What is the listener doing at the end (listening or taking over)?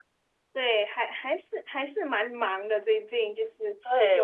taking over